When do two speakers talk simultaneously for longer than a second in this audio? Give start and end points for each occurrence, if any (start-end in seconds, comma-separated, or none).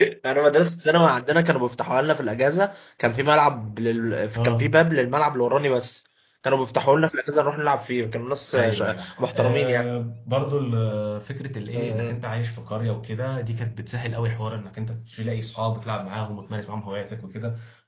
8.5-9.9